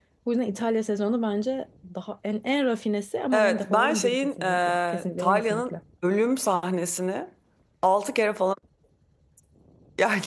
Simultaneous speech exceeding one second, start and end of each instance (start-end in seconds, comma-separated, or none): 3.3-5.7